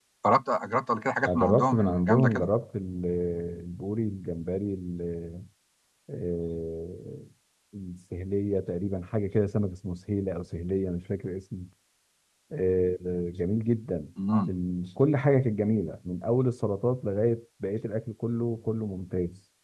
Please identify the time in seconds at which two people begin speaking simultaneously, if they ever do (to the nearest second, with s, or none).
1 s